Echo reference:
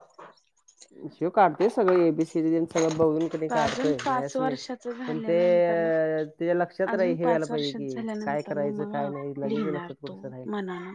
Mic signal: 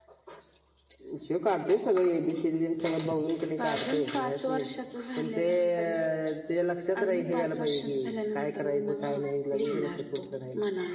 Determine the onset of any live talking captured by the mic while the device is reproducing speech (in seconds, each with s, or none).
none